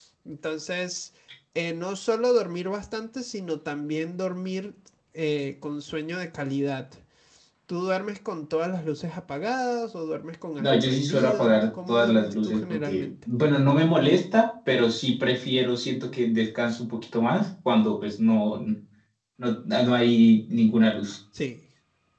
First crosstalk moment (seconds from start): 11 s

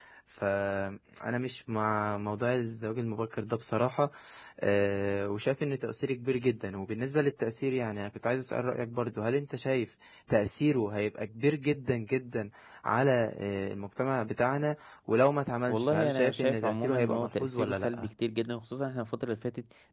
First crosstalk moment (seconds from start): 16 s

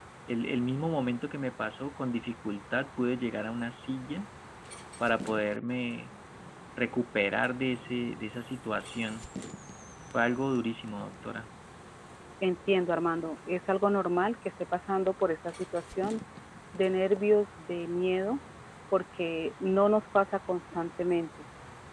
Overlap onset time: none

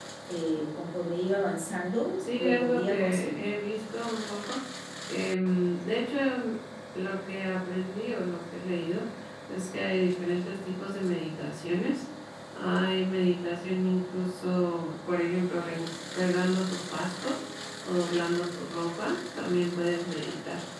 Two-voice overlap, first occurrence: 2 s

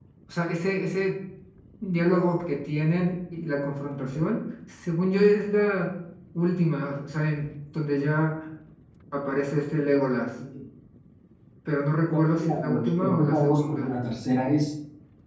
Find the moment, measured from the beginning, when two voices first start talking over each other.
12 s

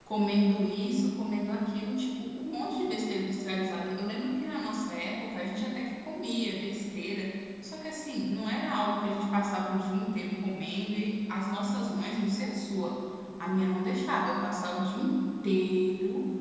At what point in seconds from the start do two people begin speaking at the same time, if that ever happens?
none

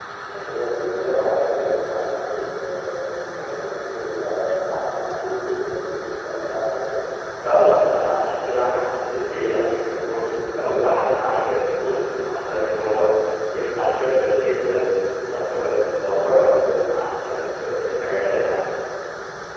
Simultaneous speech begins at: none

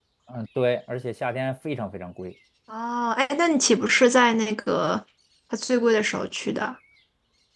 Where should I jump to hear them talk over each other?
none

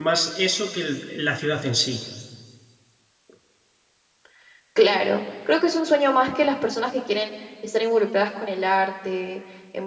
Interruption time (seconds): none

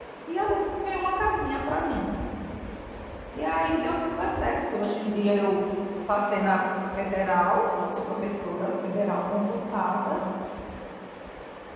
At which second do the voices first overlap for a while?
none

